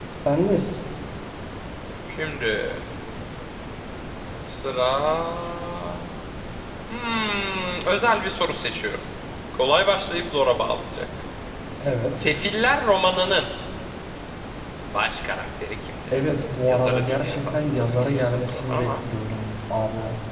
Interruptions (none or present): present